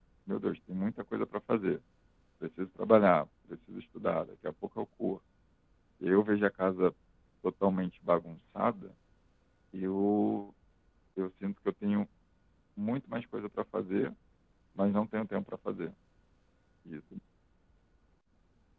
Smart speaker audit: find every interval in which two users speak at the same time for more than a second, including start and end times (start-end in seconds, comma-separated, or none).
none